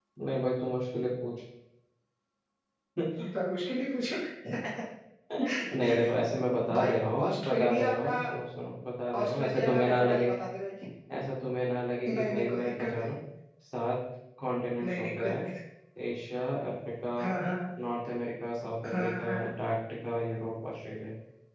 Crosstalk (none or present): present